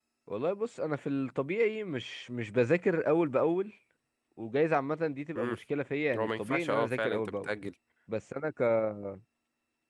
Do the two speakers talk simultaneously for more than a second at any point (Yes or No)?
Yes